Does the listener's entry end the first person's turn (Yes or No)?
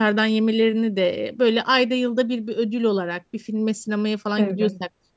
No